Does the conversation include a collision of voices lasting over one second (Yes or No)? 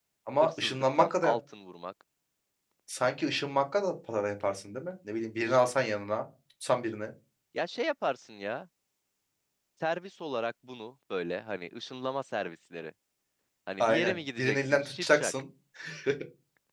Yes